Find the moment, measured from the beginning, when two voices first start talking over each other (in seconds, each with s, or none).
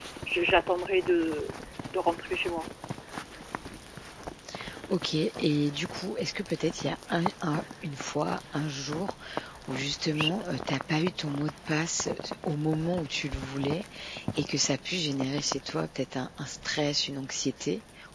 none